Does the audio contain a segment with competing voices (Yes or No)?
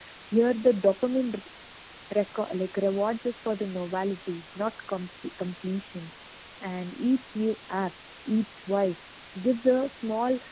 No